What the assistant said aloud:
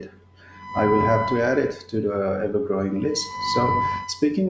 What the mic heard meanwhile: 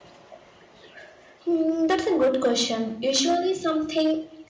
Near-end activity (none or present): present